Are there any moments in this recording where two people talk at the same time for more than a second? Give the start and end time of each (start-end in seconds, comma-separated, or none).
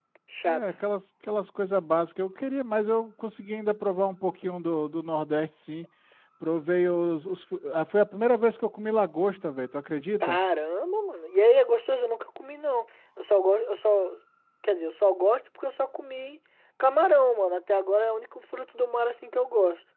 none